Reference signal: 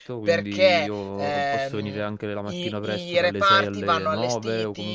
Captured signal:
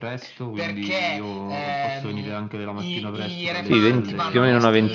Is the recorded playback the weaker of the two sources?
Yes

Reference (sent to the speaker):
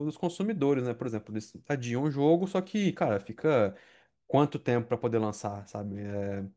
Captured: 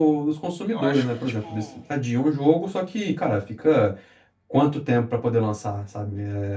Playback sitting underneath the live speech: No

